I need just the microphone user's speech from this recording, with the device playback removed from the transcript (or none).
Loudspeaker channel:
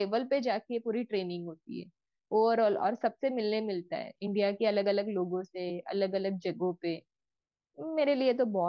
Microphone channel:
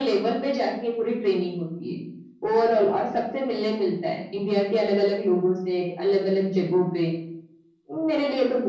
none